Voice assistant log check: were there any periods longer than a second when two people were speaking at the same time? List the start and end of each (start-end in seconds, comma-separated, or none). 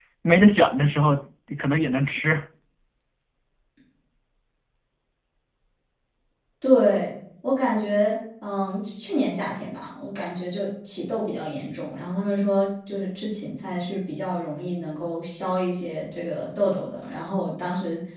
none